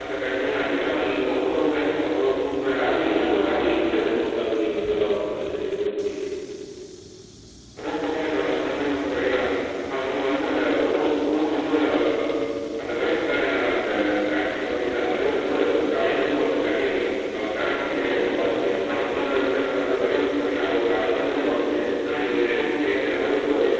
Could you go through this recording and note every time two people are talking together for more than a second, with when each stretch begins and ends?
2.8-4.1

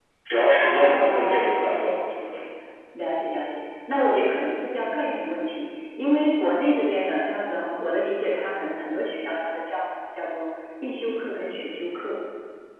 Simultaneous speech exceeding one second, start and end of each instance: 0.6-1.8

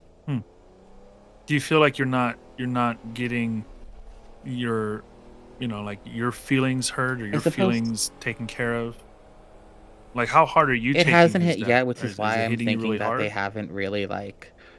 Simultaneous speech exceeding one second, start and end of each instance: 10.9-13.3

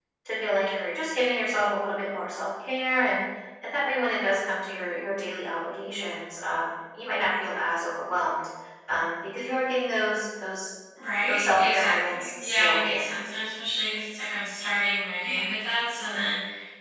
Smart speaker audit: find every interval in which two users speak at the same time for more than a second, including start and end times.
11.3-13.1

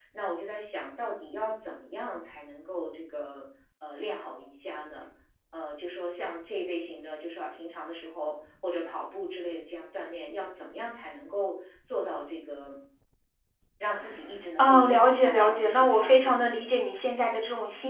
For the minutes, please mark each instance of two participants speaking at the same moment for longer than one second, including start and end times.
14.6-16.7

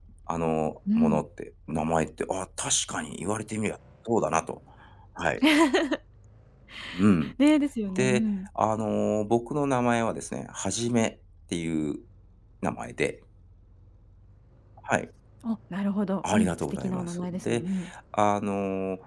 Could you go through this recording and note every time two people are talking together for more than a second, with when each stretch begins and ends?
16.3-17.6

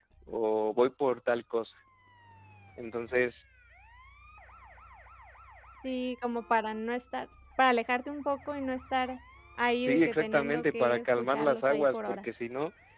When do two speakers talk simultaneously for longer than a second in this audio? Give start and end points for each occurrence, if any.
9.8-12.2

